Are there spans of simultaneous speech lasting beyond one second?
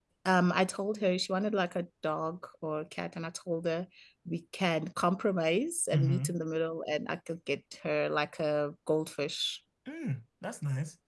No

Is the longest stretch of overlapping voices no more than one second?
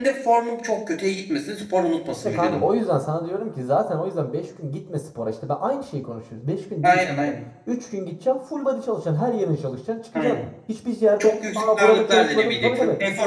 No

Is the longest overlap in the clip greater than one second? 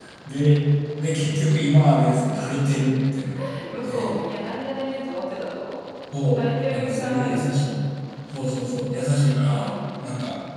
Yes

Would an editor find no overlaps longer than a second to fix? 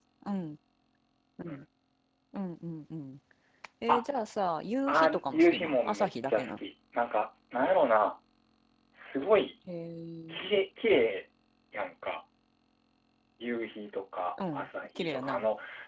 No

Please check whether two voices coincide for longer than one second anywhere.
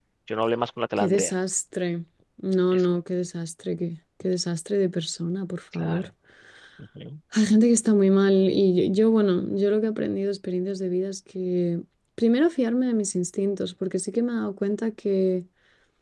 No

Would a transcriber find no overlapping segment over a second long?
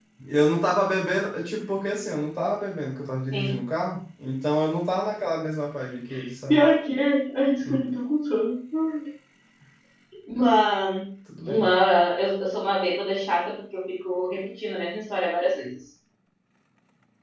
Yes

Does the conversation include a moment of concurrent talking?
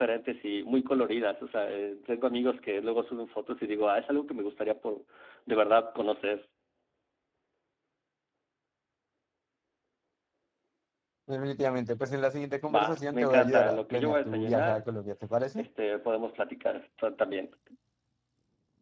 Yes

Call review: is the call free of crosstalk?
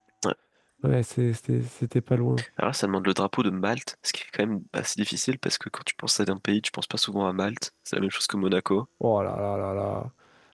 Yes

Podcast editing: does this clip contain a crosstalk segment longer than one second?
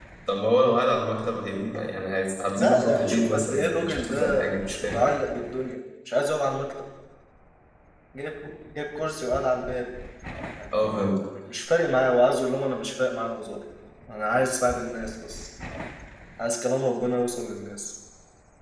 Yes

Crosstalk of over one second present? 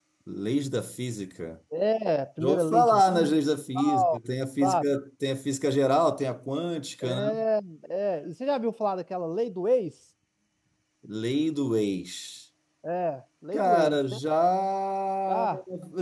Yes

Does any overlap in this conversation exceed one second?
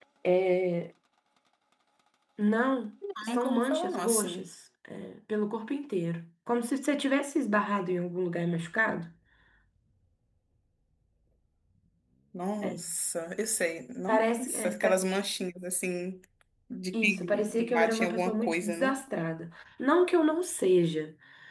Yes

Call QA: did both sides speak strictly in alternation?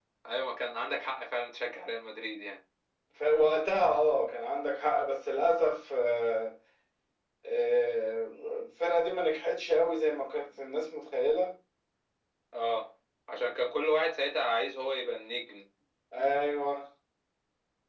Yes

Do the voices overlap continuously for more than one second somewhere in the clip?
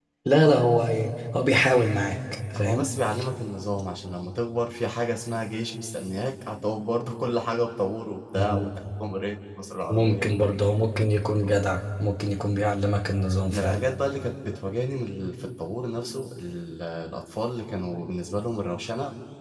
No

